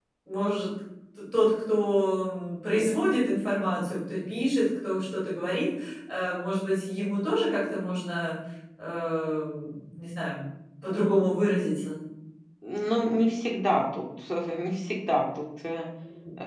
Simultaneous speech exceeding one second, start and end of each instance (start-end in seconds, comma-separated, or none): none